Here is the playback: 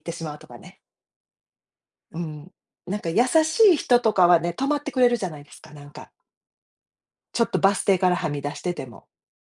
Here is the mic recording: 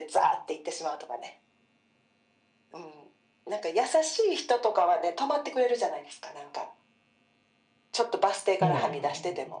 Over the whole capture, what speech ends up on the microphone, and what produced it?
both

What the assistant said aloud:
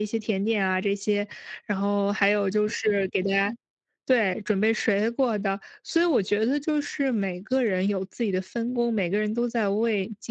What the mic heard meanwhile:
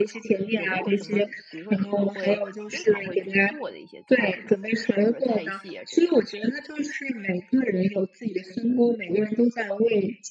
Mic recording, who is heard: both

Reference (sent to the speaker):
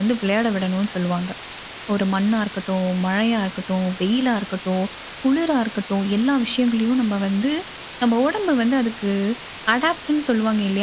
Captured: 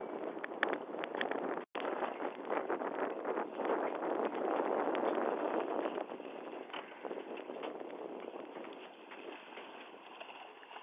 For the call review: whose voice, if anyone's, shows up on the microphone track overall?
neither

